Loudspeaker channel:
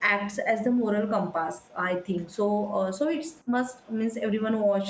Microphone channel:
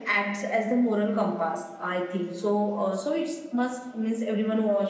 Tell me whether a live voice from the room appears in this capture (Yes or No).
No